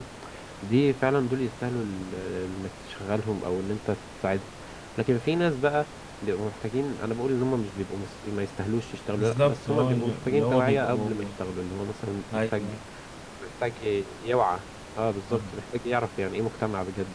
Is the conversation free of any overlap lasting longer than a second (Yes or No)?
No